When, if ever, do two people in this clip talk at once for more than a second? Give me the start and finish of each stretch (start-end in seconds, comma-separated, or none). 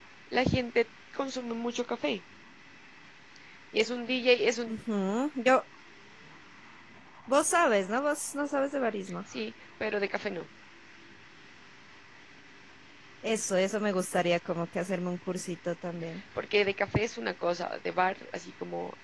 none